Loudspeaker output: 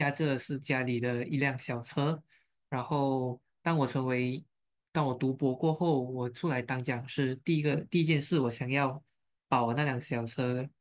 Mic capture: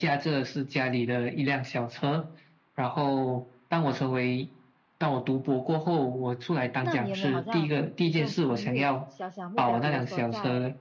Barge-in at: 6.8 s

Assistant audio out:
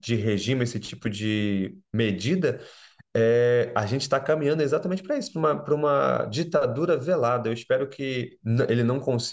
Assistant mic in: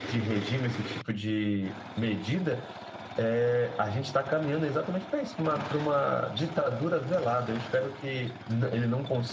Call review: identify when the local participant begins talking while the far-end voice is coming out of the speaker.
none

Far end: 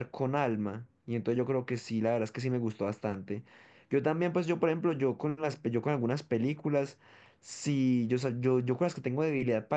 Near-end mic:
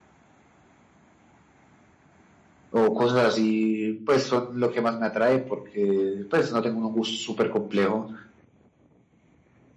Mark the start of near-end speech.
2.7 s

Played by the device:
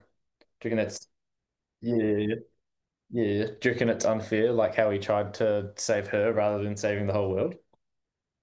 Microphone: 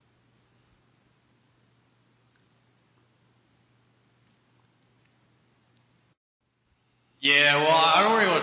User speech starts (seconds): 7.2 s

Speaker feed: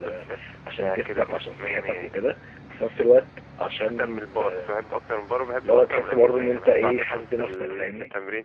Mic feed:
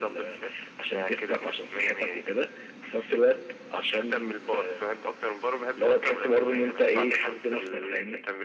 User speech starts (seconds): none

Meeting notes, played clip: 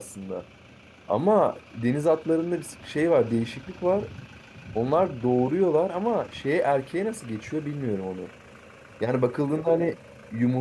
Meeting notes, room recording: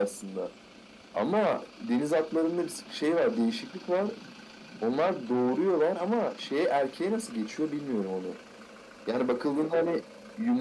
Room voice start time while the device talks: none

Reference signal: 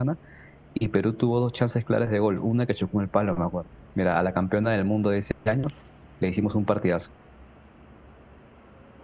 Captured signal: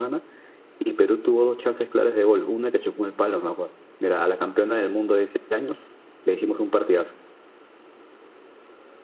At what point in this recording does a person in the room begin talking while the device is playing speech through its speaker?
none

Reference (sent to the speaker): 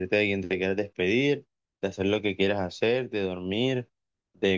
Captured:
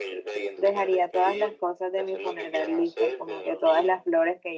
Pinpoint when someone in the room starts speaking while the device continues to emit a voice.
0.6 s

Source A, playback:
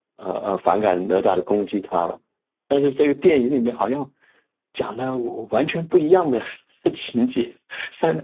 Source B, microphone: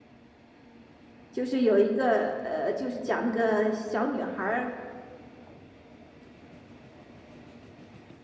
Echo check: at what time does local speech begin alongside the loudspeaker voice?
1.3 s

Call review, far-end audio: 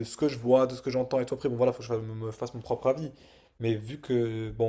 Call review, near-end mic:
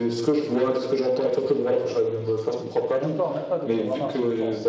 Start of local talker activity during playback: 1.4 s

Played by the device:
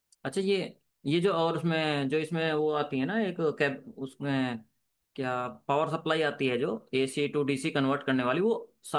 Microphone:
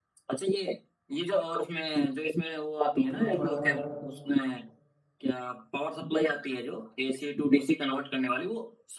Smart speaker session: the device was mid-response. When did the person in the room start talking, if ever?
2.9 s

